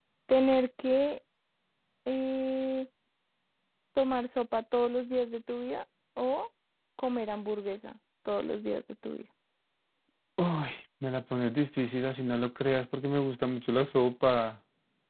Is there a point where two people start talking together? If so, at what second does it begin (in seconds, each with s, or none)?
none